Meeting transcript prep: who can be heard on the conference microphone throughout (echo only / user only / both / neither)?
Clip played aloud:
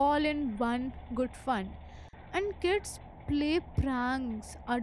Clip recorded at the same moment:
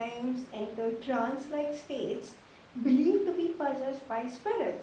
user only